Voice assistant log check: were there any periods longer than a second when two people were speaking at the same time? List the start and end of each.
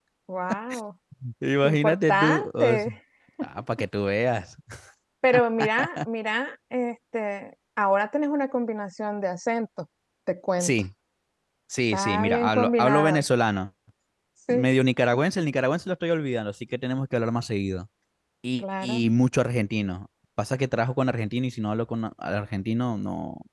1.6-2.9, 11.9-13.2

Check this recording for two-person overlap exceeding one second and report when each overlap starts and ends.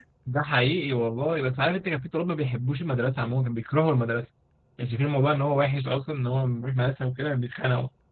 none

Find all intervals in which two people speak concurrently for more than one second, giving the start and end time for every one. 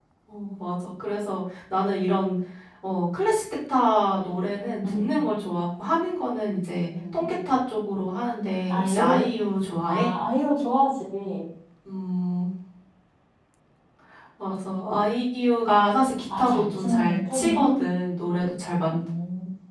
16.4-17.6

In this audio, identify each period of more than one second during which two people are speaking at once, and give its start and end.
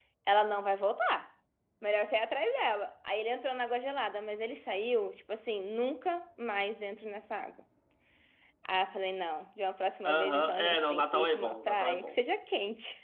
10.0-12.2

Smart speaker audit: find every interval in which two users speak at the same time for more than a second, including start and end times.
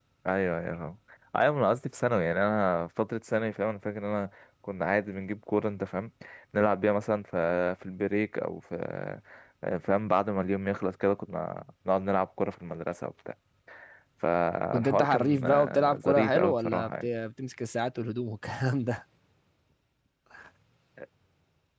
14.7-17.1

